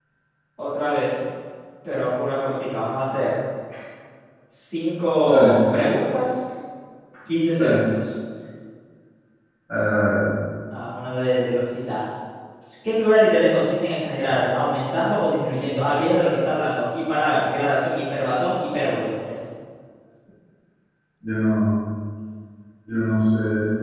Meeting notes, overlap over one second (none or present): none